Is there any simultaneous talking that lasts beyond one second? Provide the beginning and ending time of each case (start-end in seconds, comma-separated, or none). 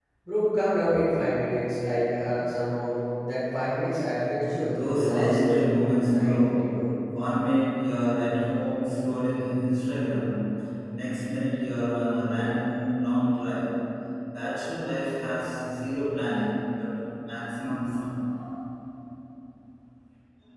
4.8-6.9